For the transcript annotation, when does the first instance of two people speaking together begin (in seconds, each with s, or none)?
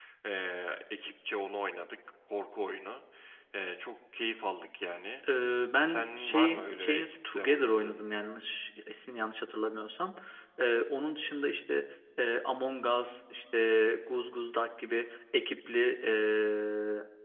5.8 s